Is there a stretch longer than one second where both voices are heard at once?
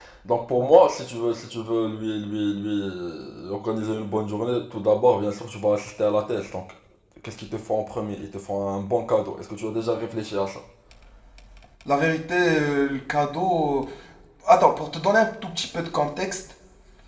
No

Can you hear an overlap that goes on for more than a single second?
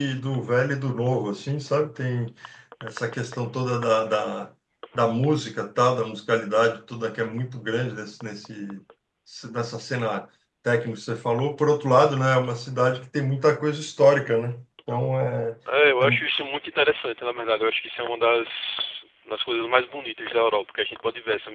No

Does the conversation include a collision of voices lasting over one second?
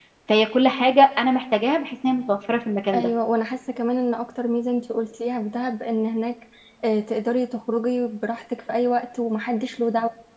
No

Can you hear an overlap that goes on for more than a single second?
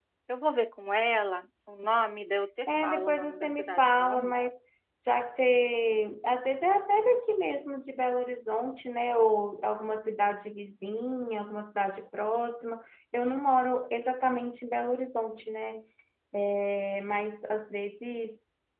Yes, from 2.7 s

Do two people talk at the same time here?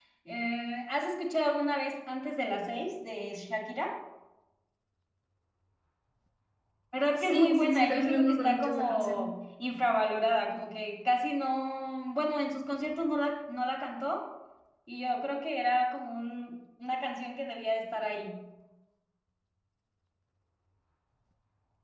Yes, from 7.2 s

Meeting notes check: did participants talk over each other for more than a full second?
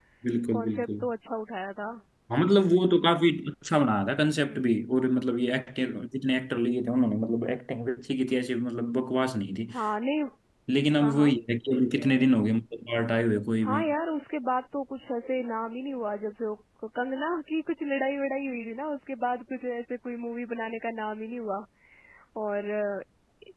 No

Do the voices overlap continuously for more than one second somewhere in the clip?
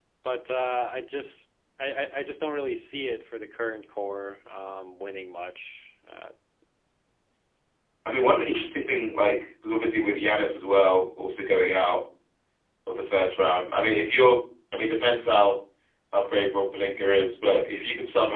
No

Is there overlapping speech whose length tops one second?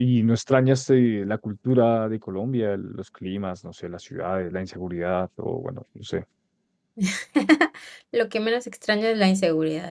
No

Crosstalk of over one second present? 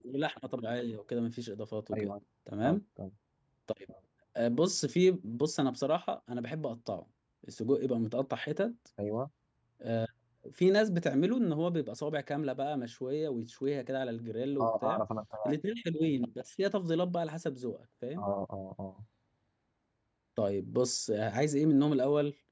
No

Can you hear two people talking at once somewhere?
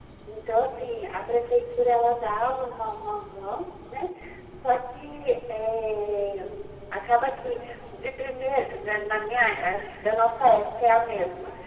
No

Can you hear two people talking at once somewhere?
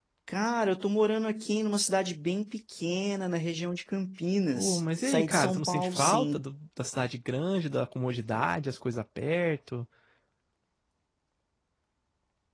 Yes, from 4.5 s

